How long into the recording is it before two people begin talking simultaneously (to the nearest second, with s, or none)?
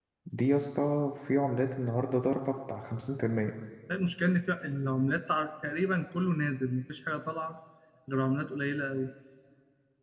none